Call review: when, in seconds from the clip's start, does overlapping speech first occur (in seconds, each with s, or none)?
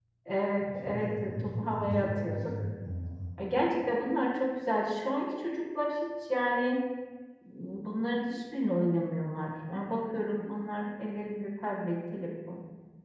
0.8 s